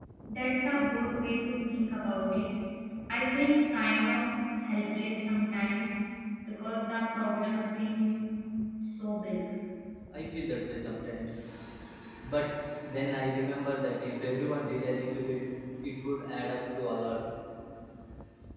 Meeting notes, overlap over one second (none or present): none